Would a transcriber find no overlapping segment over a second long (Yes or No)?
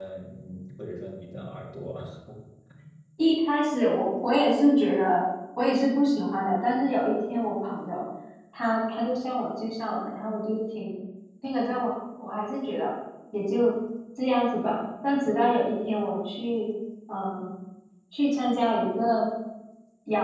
Yes